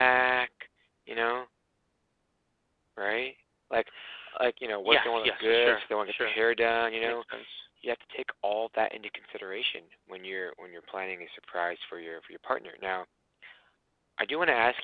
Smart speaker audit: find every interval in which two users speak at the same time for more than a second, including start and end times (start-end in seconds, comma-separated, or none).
4.8-6.3